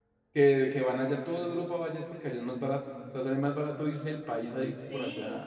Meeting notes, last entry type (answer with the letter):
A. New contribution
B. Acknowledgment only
A